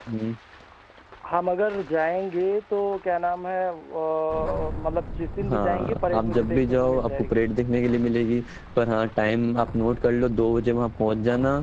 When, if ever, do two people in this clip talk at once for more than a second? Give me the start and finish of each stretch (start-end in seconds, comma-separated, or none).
5.5-7.4